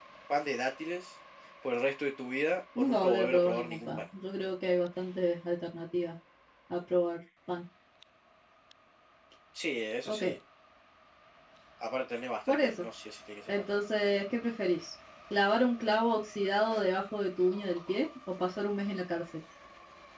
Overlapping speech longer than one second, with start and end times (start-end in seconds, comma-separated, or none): 2.8-4.0